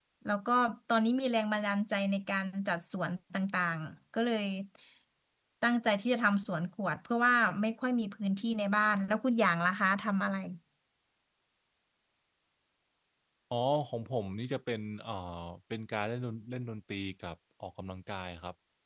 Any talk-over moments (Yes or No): No